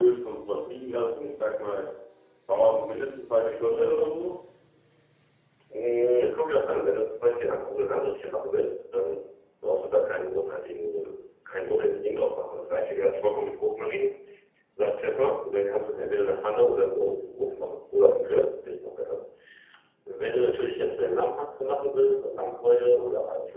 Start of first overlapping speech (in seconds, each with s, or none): none